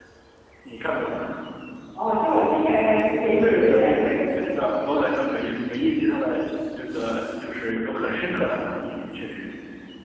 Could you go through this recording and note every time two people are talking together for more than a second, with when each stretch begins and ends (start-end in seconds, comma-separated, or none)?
3.4-4.8